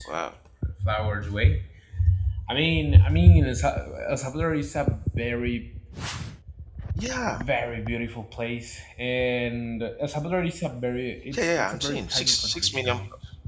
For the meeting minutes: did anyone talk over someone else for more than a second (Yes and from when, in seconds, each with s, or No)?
Yes, from 11.3 s